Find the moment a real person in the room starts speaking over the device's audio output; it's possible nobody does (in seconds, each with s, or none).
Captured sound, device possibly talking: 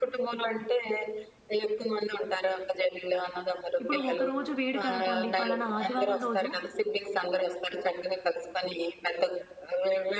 3.8 s